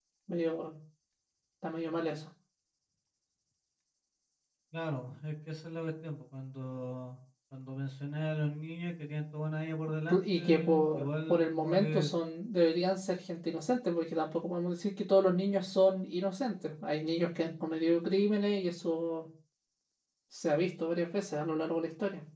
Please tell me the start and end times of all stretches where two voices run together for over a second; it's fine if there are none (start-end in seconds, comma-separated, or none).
10.1-12.1